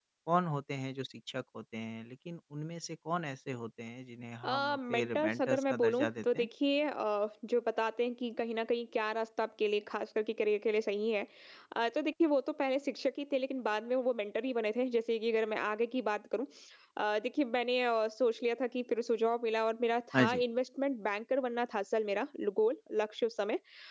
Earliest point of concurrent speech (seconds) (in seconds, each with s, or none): 4.4 s